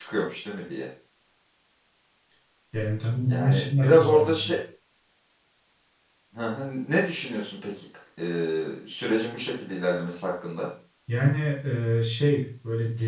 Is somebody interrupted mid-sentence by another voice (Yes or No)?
Yes